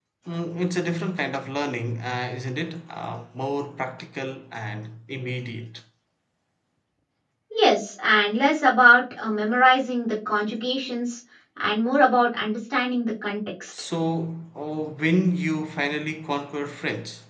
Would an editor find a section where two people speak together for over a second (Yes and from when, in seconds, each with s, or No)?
No